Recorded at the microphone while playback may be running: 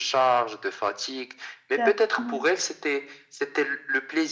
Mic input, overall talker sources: both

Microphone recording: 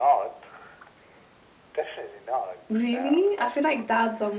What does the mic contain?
both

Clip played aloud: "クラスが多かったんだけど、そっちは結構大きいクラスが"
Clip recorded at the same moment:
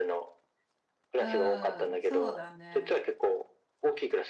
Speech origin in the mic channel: both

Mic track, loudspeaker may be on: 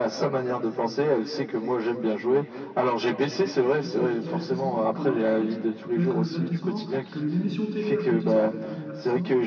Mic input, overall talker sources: both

